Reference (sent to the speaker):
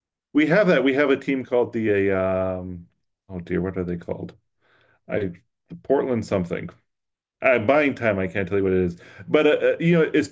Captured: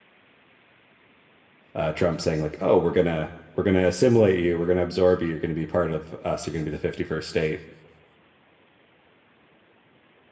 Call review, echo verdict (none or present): none